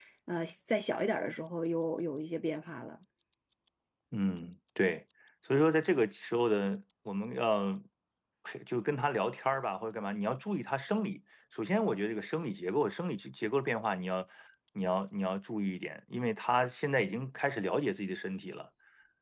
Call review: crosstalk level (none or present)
none